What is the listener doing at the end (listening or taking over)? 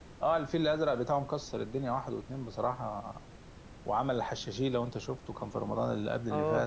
taking over